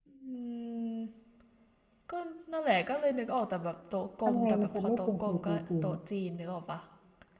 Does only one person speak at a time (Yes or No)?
No